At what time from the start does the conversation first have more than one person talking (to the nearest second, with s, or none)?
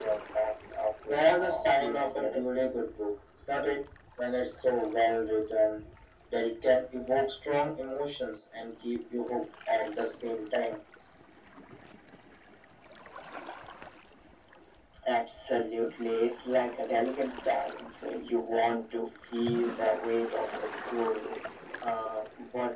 1 s